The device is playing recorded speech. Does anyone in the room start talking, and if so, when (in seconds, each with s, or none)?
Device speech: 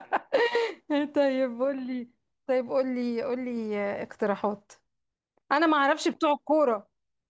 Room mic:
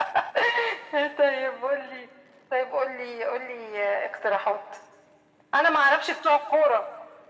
none